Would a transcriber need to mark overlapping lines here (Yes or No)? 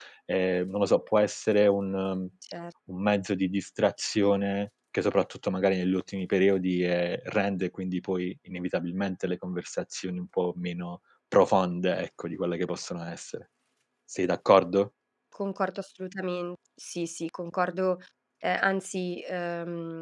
No